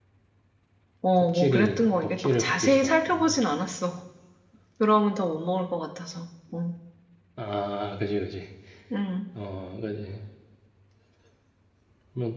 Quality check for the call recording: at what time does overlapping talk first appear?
1 s

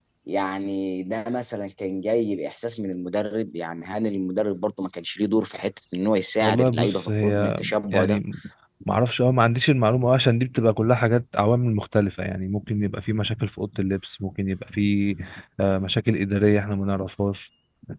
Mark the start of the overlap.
6 s

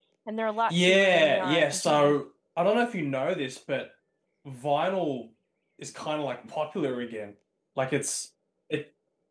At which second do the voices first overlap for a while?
1 s

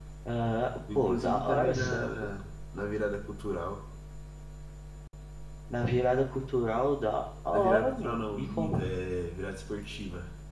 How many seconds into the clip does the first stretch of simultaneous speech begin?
1 s

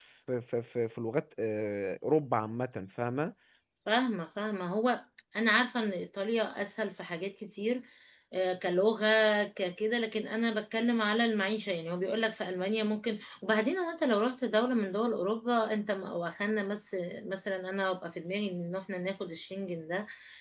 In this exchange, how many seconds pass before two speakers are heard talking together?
none

